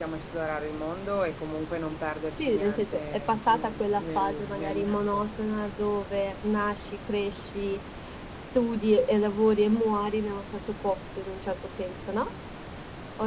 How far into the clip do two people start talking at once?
2 s

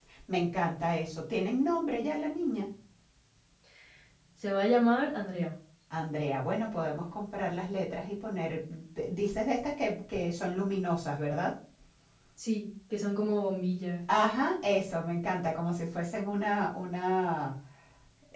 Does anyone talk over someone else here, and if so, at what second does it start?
none

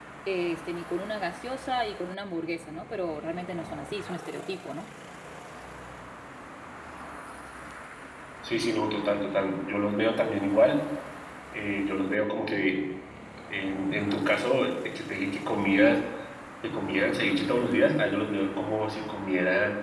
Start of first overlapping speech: none

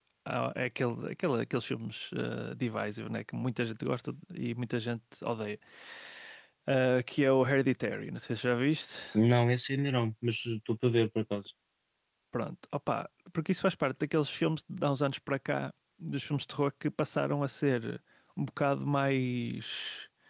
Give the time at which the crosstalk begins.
none

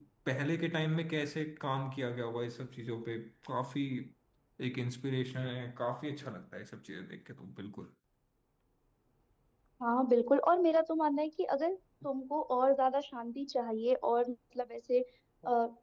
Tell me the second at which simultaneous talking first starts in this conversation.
none

